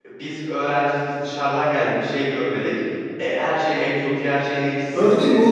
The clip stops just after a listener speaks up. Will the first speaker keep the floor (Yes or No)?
No